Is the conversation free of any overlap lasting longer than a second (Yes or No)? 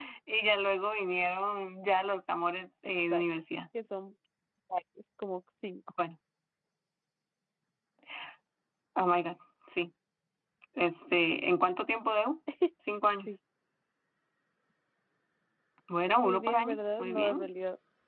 No